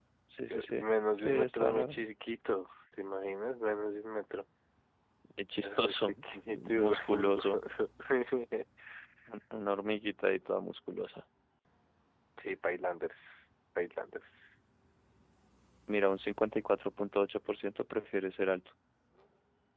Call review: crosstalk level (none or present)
present